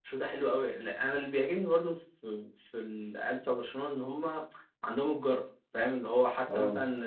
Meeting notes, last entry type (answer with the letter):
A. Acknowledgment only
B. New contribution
A